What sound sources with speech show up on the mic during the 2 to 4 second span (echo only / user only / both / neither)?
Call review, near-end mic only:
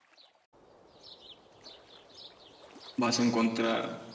user only